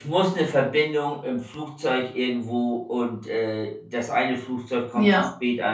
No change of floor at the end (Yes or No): Yes